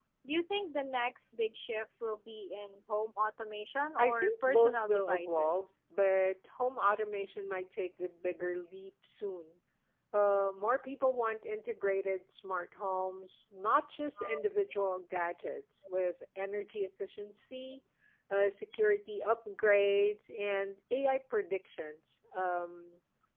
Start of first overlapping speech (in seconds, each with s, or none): 4.0 s